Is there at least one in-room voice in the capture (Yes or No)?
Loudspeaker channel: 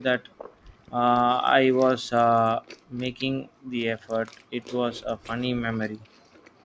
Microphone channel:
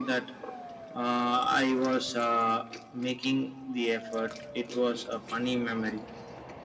No